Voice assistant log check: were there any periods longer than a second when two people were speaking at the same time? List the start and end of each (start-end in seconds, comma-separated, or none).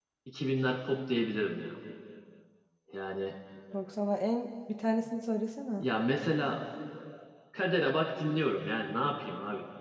none